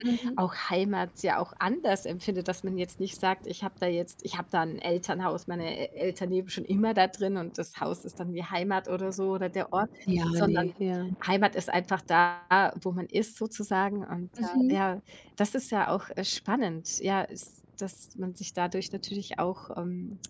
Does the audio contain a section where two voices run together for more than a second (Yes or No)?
No